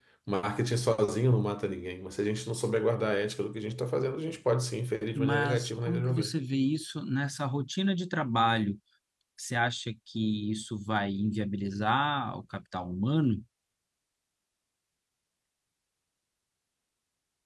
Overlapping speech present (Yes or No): Yes